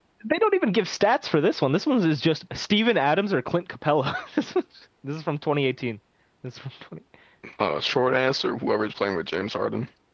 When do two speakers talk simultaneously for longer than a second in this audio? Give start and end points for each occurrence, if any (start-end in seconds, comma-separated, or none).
none